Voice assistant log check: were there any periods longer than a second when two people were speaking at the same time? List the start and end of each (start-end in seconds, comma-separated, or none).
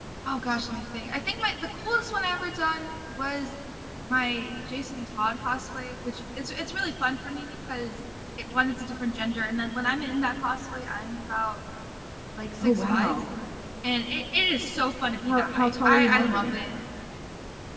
15.2-16.6